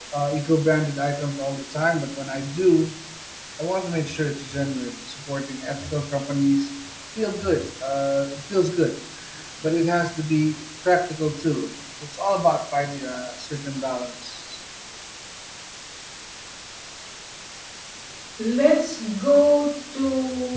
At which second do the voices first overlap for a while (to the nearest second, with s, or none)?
none